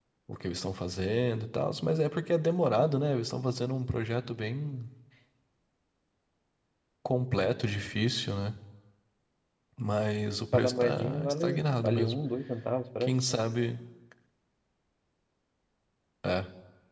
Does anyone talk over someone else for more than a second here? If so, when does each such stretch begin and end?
10.5-12.2

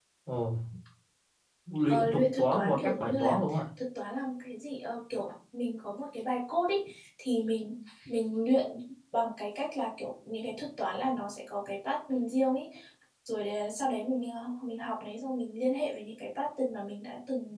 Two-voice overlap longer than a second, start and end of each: 1.9-3.4

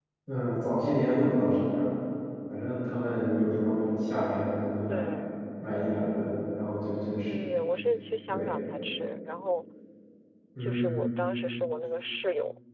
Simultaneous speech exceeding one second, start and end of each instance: none

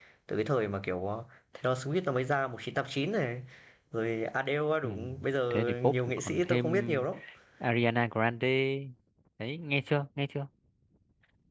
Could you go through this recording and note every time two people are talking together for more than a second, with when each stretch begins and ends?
5.5-7.0

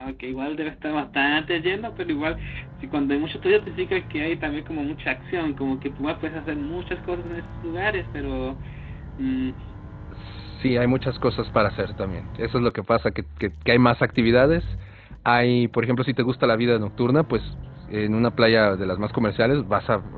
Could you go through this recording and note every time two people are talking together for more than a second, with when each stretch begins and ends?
none

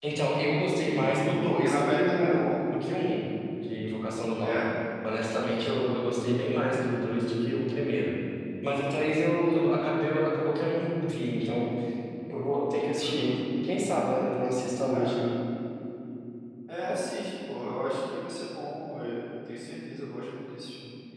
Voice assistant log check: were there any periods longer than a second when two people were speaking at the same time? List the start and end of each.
0.8-2.5

